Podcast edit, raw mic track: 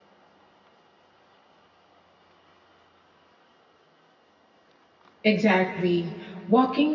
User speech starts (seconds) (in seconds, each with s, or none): 5.2 s